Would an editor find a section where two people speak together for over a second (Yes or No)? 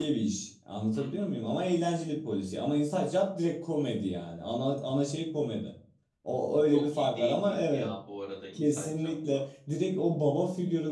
Yes